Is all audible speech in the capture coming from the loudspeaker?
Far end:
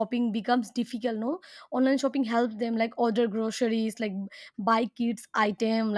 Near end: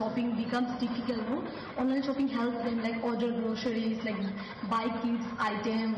Yes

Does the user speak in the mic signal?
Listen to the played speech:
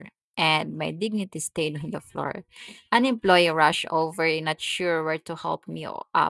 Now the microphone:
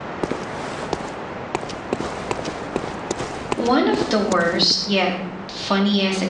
Yes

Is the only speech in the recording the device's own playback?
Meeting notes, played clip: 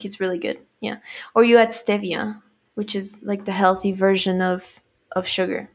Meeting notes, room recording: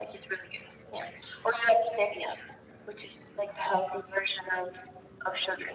Yes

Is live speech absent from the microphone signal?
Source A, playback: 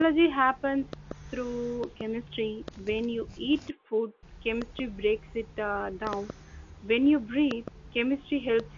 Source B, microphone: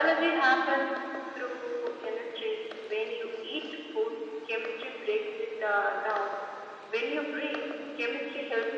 Yes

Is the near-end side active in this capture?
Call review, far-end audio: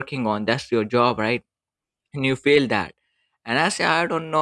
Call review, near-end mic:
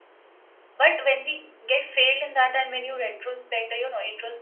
Yes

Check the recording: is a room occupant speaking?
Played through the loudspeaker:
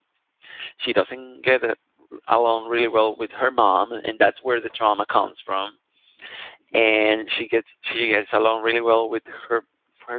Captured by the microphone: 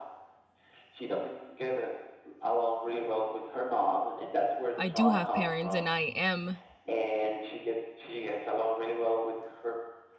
Yes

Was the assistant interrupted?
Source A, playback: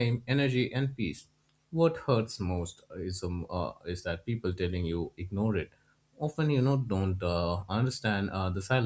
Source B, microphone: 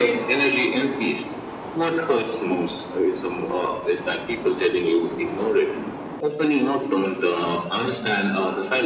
No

